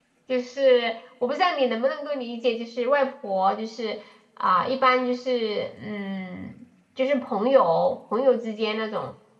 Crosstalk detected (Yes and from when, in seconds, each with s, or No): No